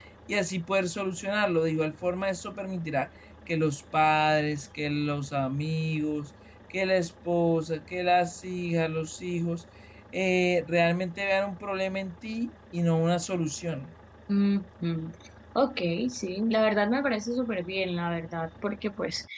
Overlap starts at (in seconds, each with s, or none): none